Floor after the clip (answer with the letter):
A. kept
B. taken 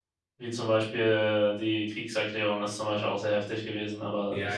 B